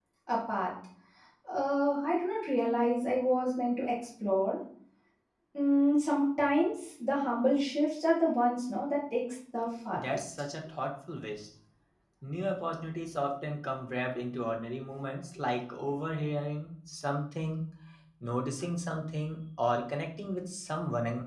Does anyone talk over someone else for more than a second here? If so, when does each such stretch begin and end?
none

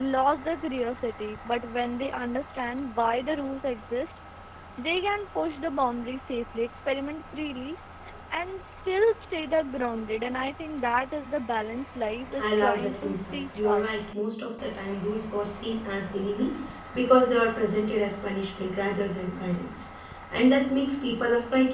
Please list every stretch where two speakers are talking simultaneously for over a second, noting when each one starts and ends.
12.4-14.0

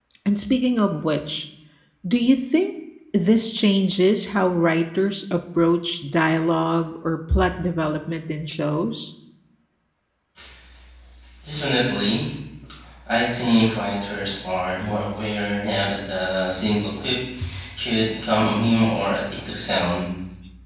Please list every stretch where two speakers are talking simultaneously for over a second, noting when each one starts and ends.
none

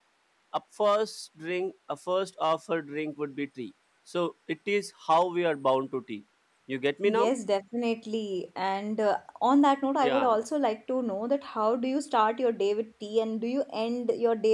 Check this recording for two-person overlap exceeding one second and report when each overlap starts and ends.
none

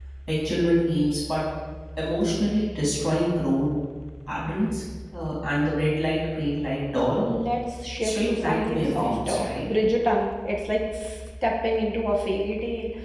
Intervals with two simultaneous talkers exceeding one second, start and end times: 8.0-9.7

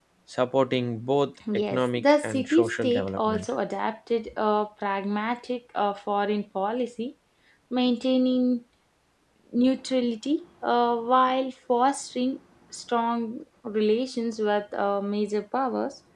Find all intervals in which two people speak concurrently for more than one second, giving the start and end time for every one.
1.5-3.5

